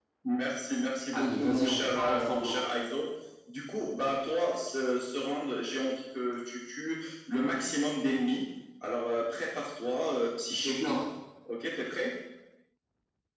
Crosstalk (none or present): present